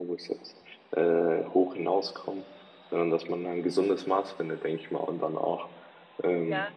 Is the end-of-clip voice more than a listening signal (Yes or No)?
No